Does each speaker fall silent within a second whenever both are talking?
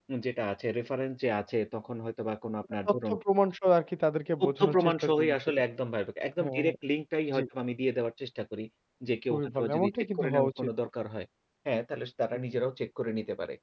No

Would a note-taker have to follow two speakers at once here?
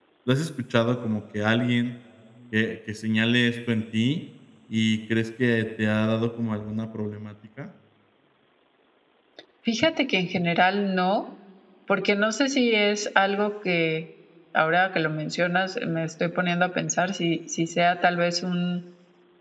No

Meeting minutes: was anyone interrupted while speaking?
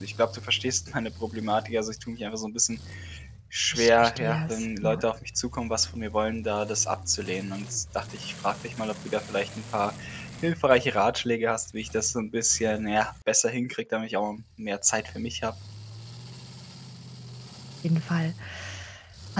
Yes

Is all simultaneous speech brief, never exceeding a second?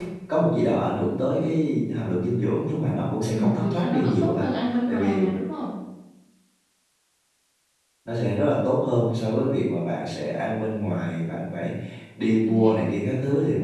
No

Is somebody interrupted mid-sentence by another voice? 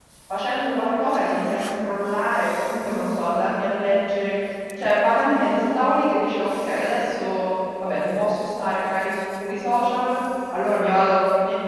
No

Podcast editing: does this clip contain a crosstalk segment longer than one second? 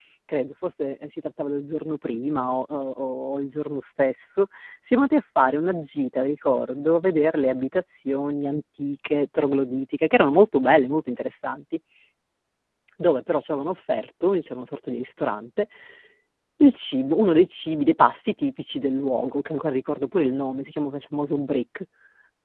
No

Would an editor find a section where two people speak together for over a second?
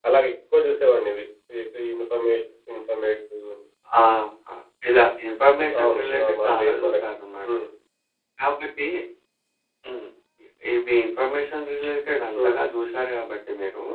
Yes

